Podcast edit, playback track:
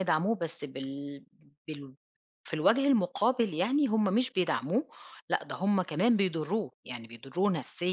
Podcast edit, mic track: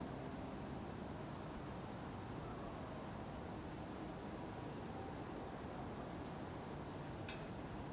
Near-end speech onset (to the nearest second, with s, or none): none